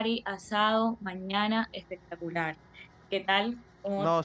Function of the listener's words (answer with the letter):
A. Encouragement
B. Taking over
B